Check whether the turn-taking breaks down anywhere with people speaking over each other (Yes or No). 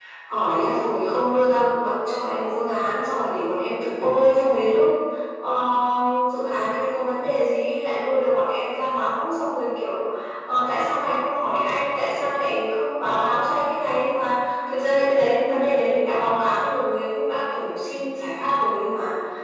No